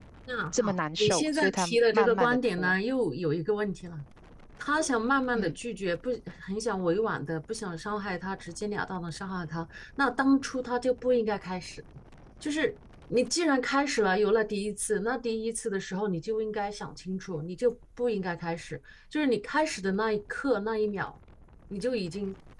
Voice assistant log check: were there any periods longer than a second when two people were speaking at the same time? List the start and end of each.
0.5-2.7

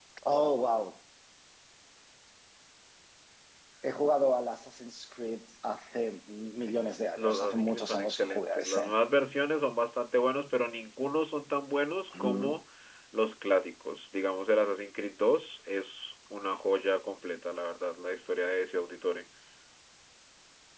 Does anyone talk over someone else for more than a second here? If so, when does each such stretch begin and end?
7.2-8.8

